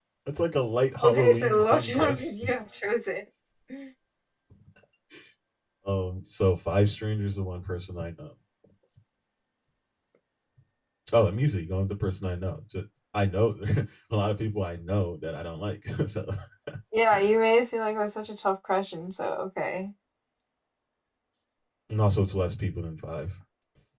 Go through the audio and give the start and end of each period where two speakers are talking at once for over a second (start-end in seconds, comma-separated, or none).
1.0-2.5